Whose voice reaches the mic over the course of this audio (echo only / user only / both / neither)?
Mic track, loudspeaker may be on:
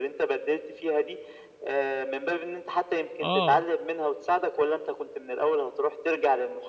both